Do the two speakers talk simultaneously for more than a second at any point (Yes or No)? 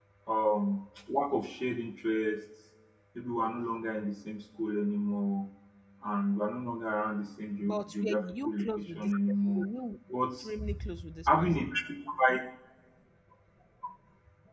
Yes